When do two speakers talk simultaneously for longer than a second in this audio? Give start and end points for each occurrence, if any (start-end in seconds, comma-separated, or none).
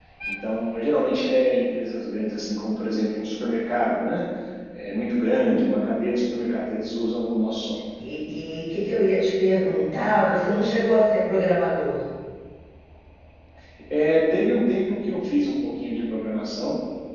none